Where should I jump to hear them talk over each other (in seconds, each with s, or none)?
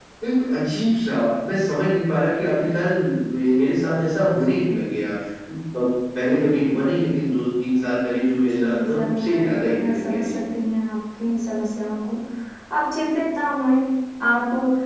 8.4 s